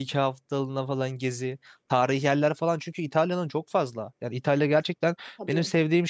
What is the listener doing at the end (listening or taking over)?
listening